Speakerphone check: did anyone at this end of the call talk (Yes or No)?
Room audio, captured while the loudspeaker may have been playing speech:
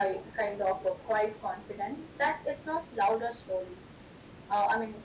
No